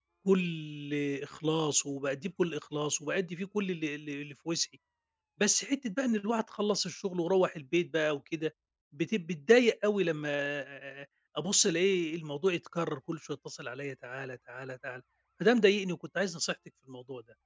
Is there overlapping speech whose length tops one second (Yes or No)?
No